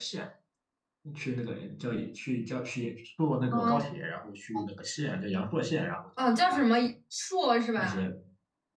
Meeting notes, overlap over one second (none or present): none